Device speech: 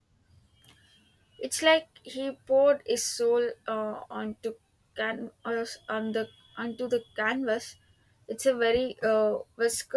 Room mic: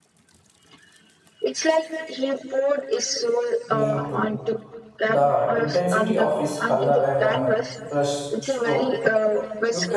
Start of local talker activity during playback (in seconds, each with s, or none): 3.7 s